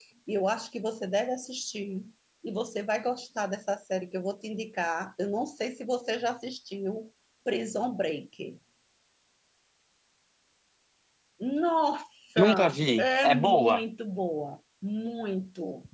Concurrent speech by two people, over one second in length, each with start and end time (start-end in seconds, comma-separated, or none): 12.4-13.8